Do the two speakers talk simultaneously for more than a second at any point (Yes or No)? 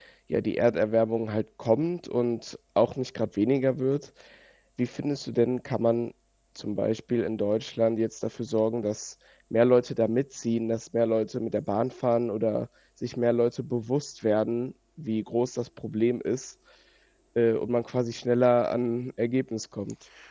No